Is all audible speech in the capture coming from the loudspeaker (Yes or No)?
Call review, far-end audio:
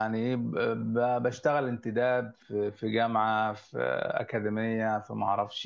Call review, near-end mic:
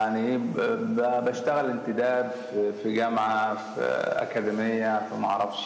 Yes